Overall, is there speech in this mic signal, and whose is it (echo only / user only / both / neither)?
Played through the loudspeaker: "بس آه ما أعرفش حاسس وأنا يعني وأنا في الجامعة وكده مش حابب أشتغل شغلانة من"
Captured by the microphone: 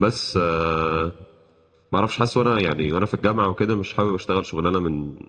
echo only